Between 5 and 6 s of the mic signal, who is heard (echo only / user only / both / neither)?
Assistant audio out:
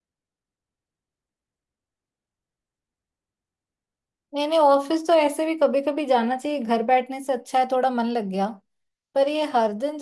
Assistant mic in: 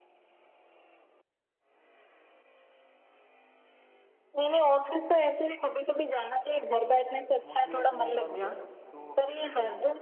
echo only